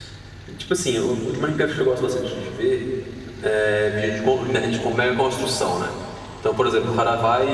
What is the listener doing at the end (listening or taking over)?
listening